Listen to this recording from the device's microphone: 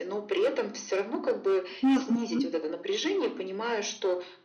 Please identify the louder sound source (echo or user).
user